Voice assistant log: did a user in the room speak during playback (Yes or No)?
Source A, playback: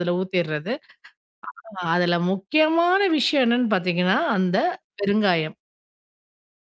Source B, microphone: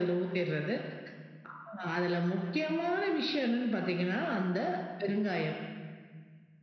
No